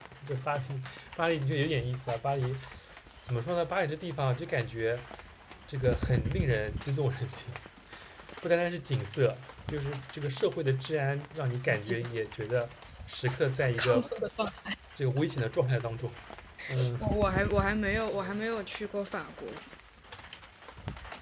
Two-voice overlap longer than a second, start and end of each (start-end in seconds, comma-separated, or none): none